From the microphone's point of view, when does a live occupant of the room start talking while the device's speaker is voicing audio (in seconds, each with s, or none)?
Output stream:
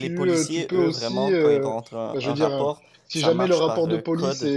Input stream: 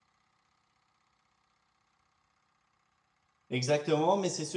3.5 s